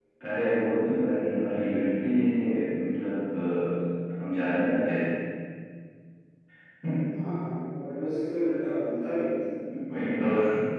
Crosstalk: none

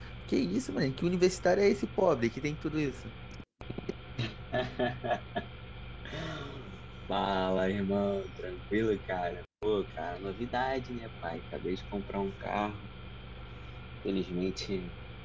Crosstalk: none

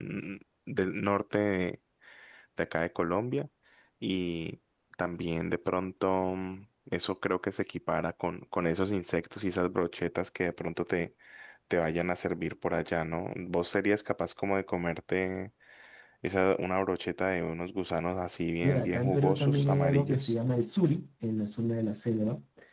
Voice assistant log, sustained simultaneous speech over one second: present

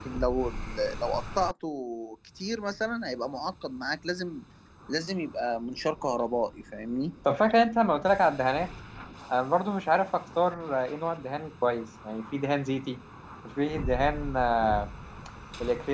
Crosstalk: none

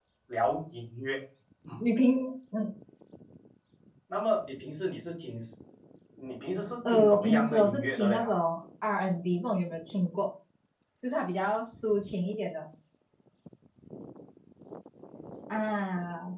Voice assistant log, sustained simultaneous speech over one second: present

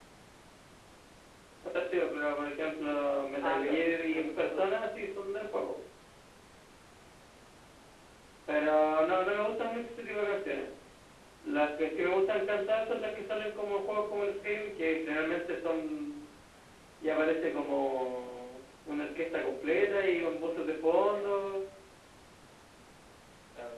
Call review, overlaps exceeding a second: present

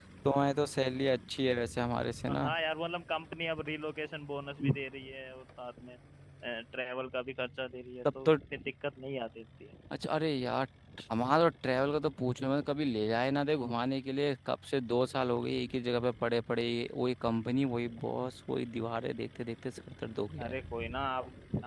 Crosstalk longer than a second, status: none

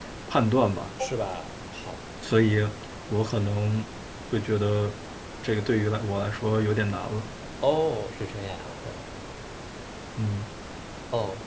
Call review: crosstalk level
none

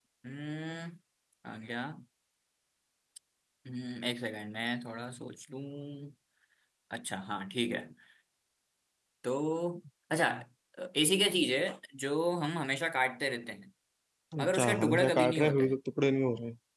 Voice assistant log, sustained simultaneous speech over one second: present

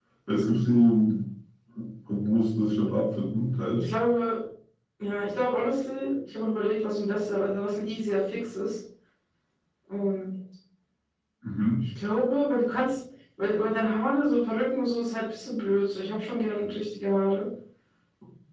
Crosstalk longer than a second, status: none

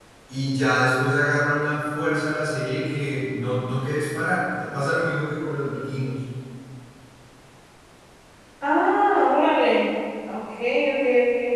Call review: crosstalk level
none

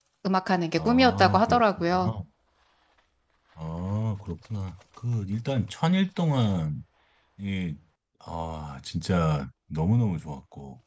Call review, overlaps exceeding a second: present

